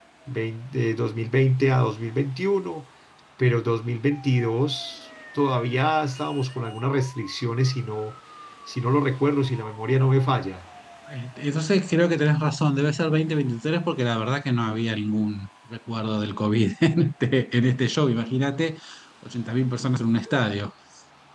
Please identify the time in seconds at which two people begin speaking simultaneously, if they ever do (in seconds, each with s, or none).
none